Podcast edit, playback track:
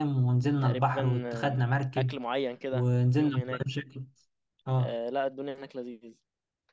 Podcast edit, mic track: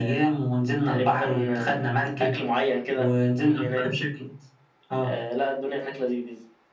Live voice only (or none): none